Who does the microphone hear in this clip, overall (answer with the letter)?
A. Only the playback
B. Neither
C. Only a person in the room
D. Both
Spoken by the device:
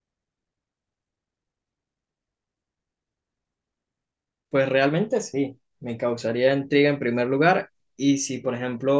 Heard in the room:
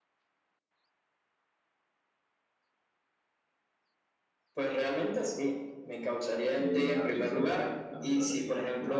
D